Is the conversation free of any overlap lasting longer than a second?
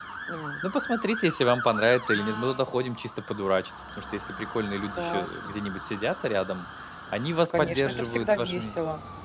No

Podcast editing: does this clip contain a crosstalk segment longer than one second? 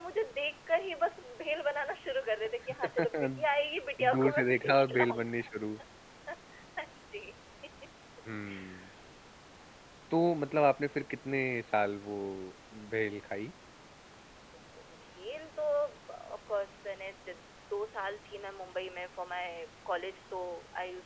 Yes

